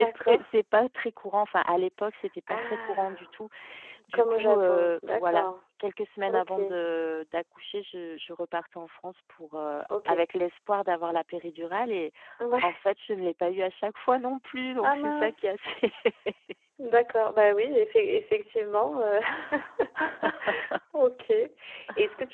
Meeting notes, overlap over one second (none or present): present